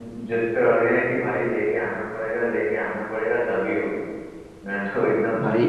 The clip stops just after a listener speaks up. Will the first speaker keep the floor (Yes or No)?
No